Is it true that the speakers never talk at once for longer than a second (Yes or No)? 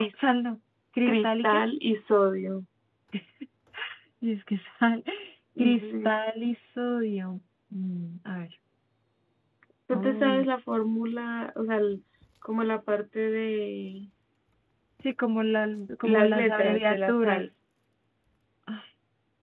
No